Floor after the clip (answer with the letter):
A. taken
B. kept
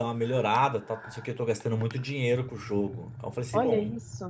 B